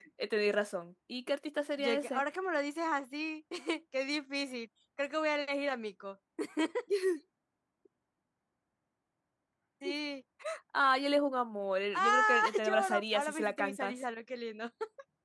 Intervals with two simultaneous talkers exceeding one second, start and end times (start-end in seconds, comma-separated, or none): 11.9-14.0